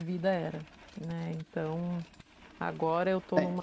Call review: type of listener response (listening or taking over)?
listening